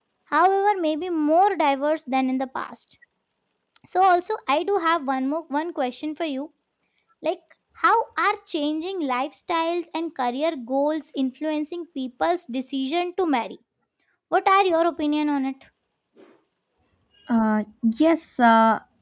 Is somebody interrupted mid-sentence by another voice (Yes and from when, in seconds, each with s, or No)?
No